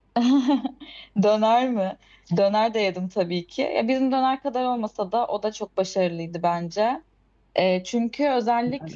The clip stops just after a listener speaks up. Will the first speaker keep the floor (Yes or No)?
Yes